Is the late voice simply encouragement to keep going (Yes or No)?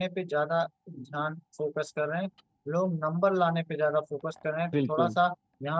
Yes